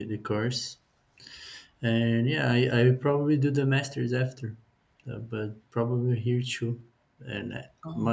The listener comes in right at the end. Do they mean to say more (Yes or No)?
No